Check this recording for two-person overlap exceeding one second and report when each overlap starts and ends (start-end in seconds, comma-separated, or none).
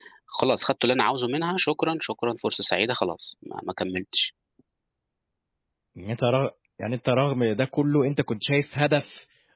none